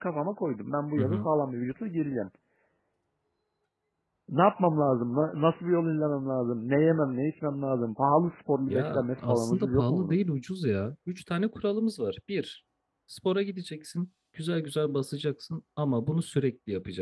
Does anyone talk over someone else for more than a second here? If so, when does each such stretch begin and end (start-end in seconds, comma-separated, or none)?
8.7-10.2